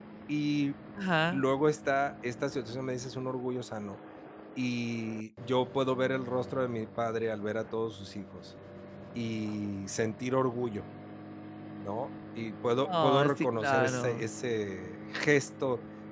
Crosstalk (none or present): present